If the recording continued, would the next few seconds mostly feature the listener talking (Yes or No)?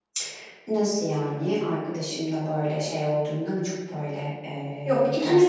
Yes